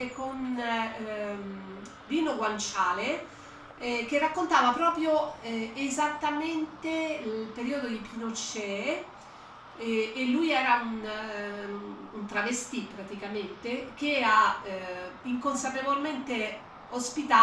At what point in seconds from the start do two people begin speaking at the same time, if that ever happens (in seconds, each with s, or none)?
none